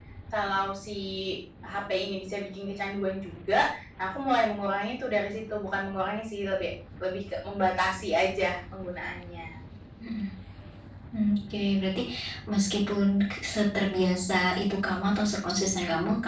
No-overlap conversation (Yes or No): Yes